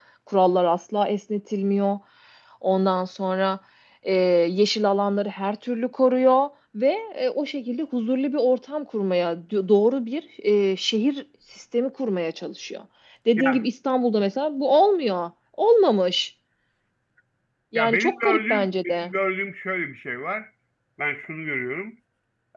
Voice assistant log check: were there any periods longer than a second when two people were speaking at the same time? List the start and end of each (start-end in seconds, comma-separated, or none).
17.8-19.1